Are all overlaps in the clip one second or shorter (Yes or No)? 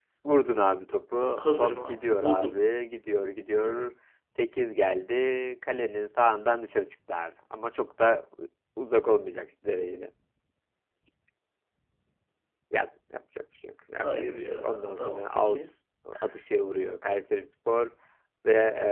No